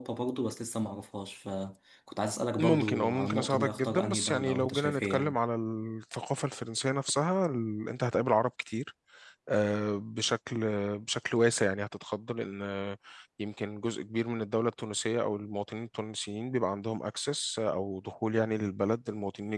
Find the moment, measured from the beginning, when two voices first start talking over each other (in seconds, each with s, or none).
2.6 s